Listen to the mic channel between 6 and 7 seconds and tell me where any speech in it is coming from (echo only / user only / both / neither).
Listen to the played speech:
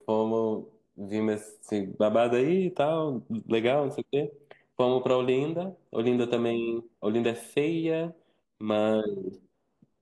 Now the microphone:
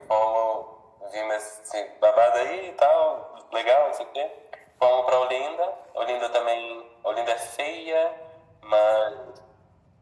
echo only